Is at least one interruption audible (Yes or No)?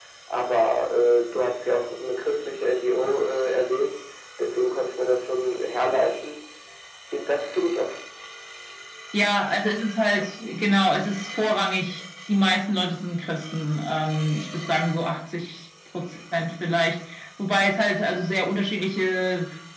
No